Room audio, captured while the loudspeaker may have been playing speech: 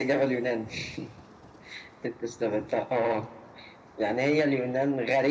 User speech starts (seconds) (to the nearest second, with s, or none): none